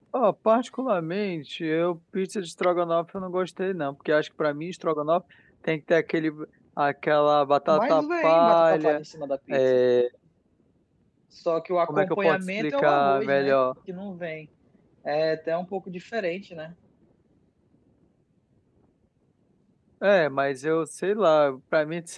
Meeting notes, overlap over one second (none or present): present